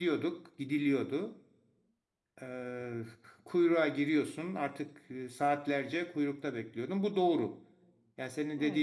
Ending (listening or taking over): listening